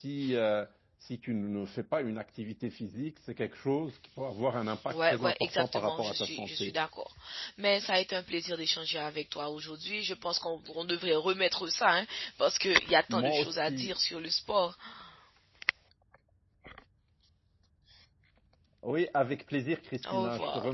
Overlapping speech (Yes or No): Yes